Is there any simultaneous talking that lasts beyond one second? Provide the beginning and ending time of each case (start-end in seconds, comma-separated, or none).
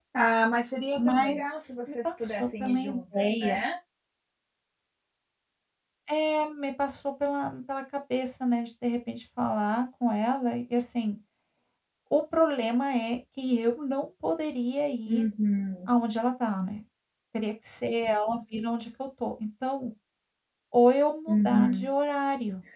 1.9-3.6